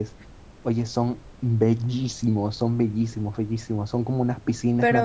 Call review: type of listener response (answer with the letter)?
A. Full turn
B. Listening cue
B